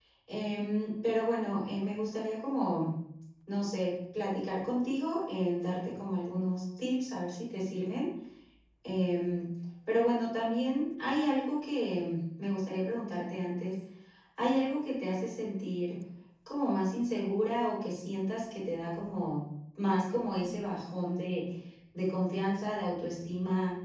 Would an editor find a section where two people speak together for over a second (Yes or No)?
No